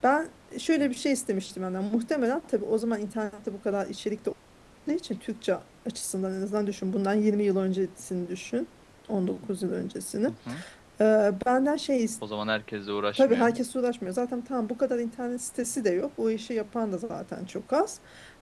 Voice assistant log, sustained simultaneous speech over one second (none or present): none